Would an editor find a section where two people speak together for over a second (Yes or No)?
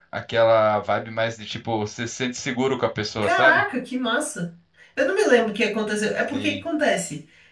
No